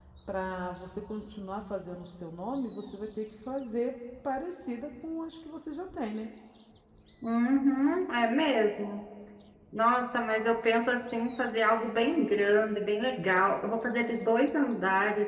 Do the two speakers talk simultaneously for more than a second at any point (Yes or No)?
No